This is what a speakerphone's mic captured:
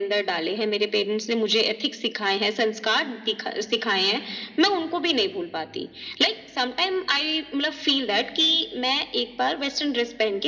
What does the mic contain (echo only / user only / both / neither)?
echo only